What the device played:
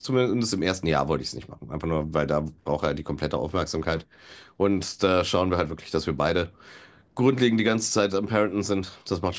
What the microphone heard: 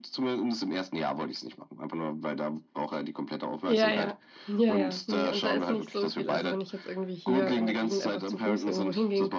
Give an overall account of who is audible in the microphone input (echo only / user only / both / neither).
both